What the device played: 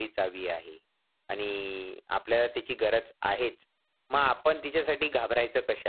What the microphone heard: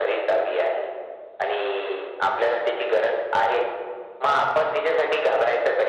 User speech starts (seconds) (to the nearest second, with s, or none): none